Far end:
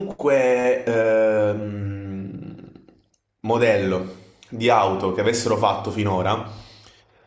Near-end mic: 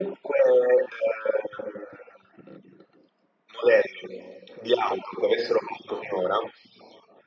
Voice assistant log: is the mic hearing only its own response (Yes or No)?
Yes